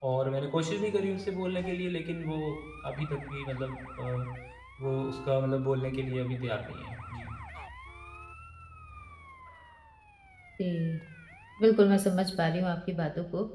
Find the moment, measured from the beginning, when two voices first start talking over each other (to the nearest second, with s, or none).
none